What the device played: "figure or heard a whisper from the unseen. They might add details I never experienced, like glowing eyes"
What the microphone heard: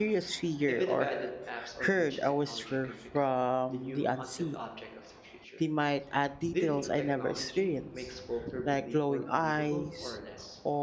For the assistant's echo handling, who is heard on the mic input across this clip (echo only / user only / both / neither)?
both